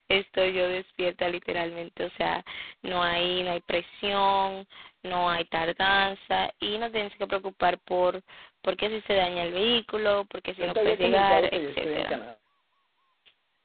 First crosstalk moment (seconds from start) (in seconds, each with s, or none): 10.6 s